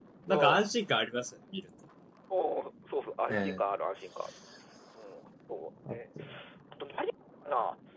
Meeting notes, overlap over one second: none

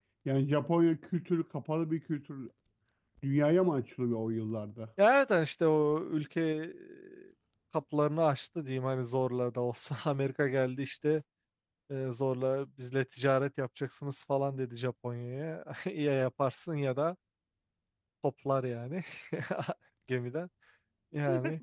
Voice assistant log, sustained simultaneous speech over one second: none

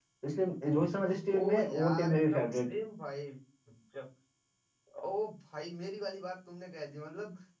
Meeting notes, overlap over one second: present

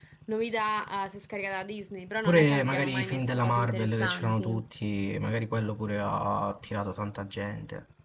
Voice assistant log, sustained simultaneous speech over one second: present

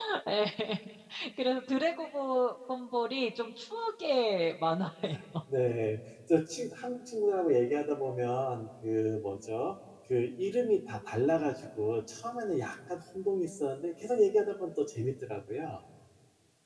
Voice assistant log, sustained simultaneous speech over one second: none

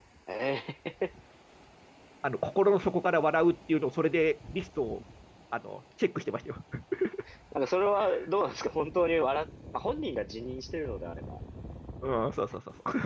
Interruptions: none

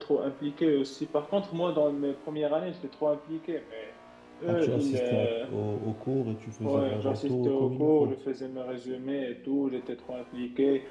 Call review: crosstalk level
present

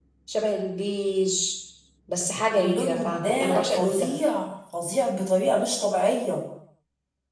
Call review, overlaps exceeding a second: present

